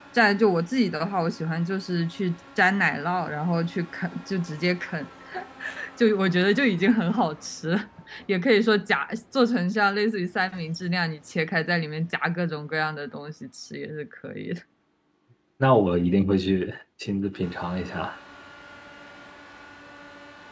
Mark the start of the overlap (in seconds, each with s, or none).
none